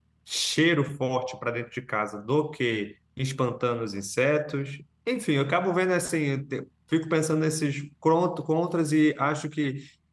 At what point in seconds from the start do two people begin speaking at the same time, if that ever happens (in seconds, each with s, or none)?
none